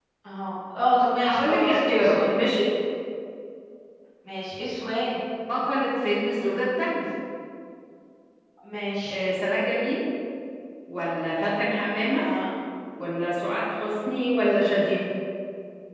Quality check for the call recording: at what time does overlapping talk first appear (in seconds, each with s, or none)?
1.2 s